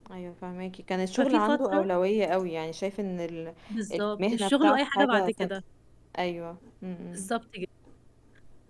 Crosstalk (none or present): present